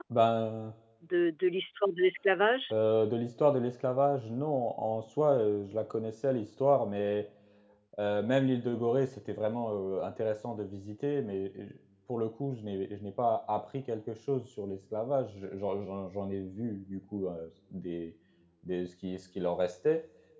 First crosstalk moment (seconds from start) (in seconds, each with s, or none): none